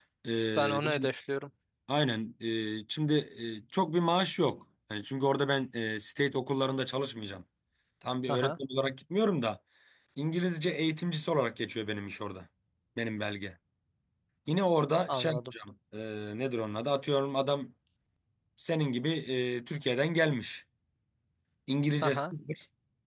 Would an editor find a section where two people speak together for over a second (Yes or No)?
No